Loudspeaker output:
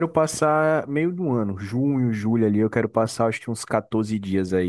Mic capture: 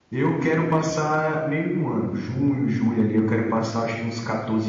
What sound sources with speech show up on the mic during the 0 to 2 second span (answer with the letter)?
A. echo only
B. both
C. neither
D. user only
A